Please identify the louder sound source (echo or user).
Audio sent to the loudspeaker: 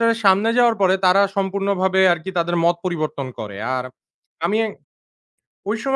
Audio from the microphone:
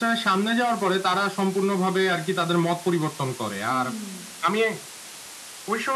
echo